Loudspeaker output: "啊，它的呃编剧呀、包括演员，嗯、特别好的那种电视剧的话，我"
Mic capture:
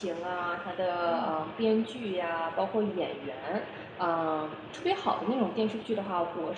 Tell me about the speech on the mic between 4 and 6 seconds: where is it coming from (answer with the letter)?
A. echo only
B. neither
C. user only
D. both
A